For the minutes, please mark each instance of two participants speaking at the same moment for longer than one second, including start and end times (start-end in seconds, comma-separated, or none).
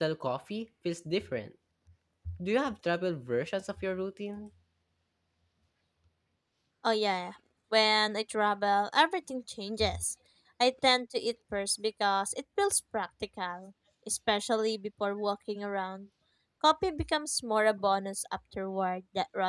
none